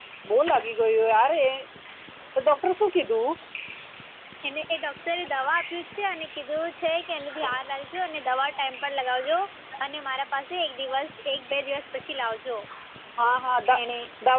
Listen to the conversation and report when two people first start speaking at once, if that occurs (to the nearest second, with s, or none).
none